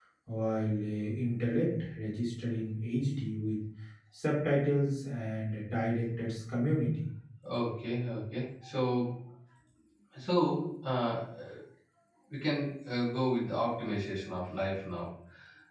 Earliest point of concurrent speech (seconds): none

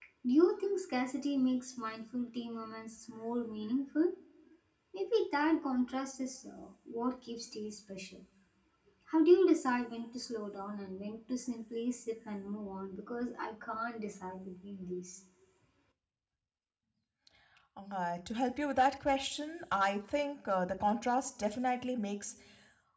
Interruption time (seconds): none

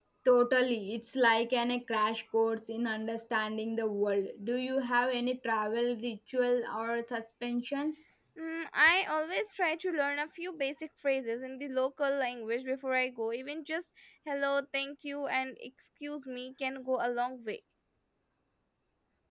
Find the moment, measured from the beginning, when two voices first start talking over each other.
none

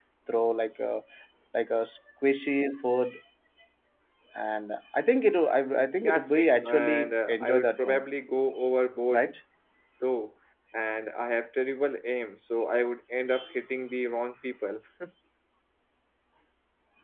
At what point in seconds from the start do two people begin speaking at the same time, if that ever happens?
6.0 s

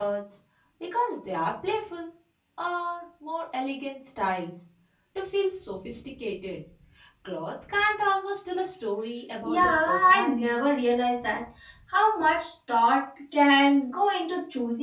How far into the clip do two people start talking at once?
9.4 s

